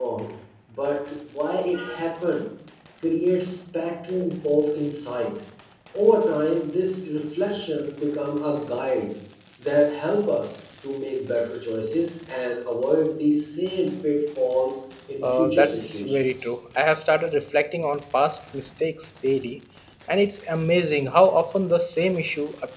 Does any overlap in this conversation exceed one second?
Yes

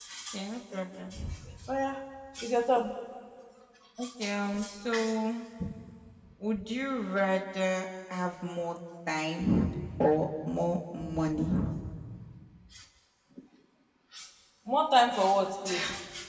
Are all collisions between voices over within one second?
Yes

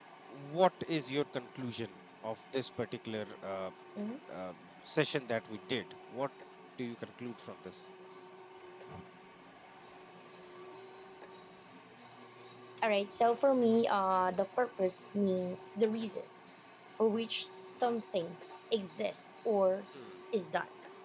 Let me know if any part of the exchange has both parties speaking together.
No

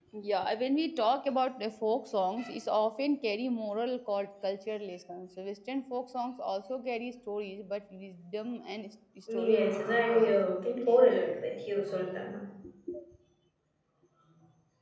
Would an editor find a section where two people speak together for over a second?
Yes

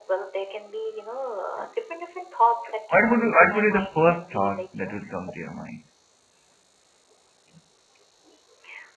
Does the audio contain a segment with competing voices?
Yes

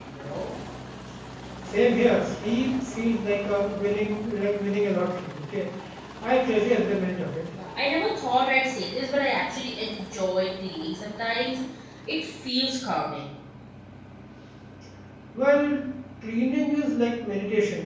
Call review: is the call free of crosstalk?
Yes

